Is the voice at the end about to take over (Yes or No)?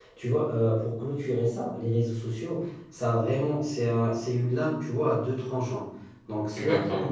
No